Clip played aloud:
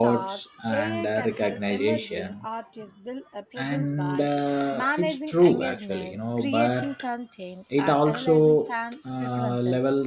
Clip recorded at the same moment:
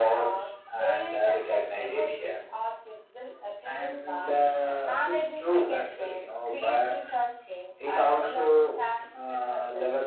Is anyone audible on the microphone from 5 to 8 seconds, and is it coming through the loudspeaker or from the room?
echo only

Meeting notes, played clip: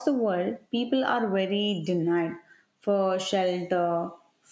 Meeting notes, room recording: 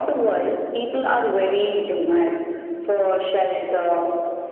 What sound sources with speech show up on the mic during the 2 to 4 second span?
echo only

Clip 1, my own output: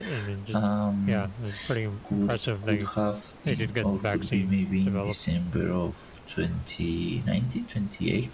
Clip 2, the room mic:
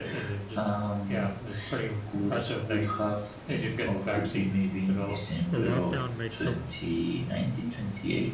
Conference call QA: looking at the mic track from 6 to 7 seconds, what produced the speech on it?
both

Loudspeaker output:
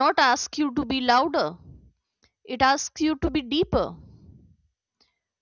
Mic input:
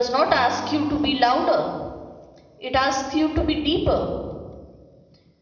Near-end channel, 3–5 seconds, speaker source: echo only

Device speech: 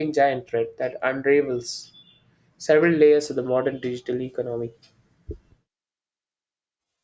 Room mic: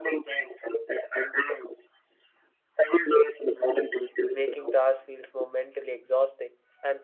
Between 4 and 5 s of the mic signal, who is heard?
both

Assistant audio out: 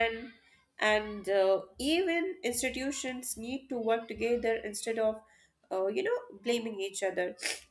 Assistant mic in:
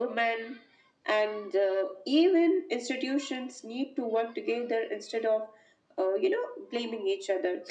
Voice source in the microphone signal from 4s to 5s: echo only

